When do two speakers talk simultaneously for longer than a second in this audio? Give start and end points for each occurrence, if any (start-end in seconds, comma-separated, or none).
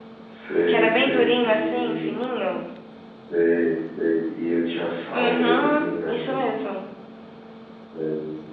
0.7-2.1, 5.1-6.5